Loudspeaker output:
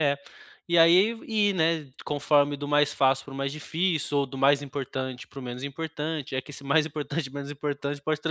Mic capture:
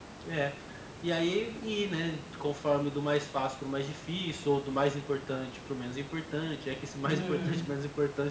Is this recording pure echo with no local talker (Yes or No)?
No